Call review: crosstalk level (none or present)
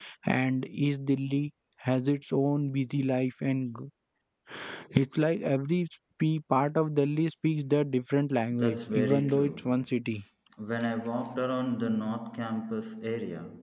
present